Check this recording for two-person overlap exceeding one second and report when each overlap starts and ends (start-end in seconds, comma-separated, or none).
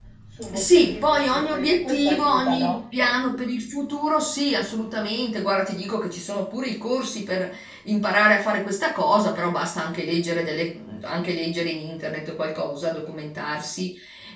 0.5-2.8